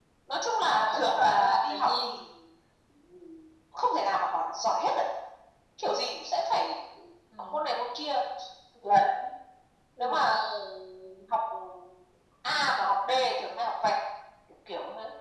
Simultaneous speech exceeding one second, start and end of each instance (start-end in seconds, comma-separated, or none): 0.8-2.1